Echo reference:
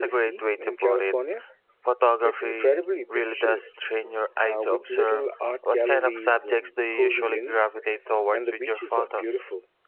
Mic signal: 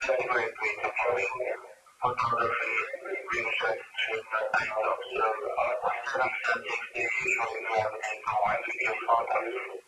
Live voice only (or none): none